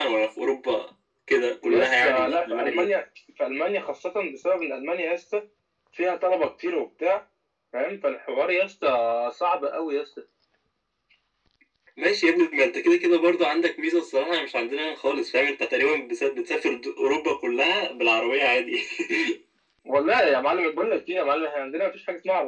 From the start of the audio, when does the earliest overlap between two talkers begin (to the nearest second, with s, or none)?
2 s